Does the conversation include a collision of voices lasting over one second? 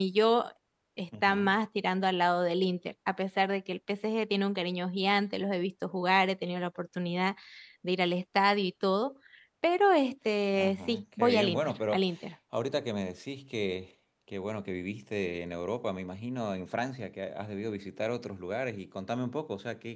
Yes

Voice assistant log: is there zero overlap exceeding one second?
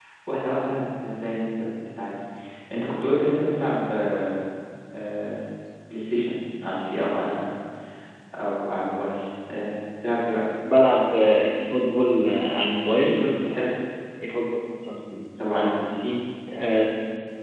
Yes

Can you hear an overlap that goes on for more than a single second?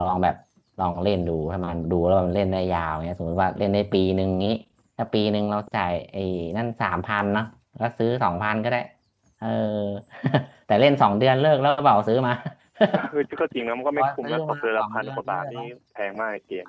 Yes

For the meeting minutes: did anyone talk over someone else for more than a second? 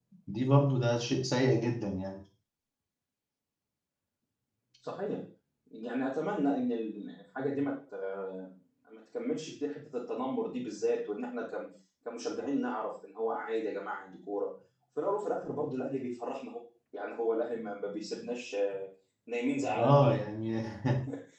No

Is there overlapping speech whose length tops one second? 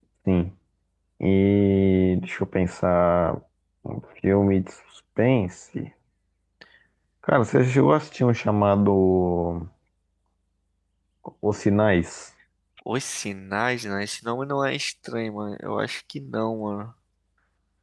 No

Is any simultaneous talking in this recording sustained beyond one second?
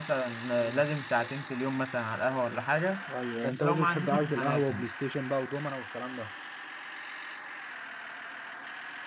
Yes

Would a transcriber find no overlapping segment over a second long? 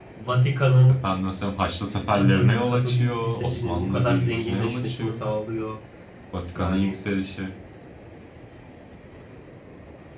No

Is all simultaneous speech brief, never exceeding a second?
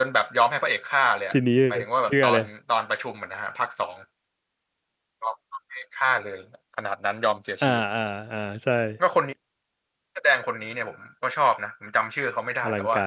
Yes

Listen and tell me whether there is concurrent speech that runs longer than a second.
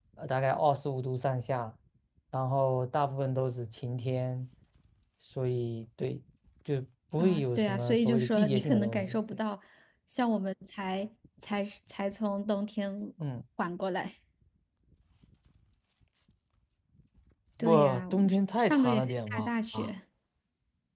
Yes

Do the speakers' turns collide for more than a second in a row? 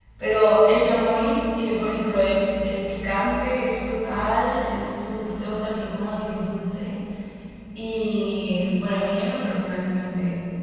No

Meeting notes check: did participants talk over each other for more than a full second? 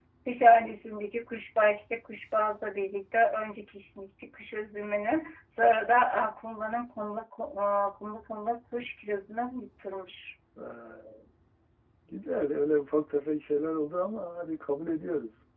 No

